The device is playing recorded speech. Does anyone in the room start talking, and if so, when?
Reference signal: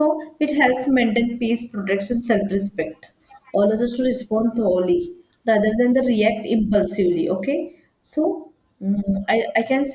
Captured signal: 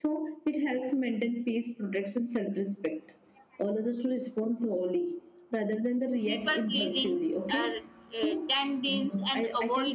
6.2 s

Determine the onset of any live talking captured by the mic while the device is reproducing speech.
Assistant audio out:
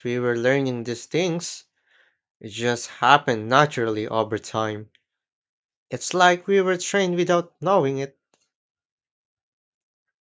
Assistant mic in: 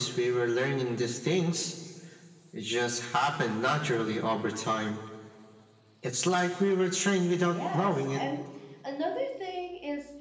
7.4 s

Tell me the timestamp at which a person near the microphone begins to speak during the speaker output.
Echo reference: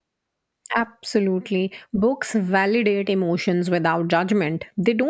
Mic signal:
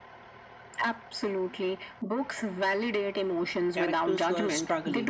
3.7 s

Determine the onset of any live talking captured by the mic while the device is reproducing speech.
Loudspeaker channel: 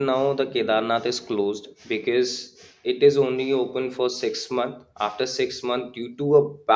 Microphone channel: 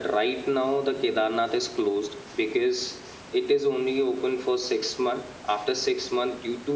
none

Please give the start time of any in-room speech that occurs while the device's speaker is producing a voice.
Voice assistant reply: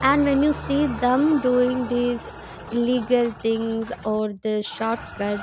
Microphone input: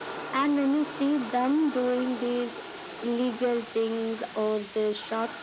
none

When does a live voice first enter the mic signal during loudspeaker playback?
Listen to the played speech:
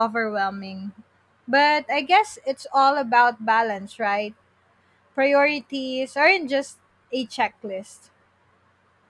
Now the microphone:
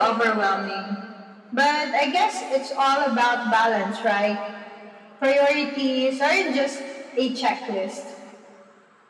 none

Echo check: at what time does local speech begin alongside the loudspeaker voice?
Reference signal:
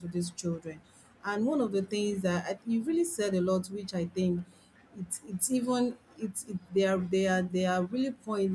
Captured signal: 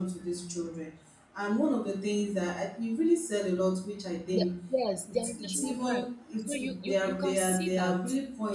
4.3 s

